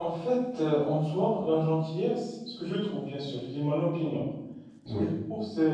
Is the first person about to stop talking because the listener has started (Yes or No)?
No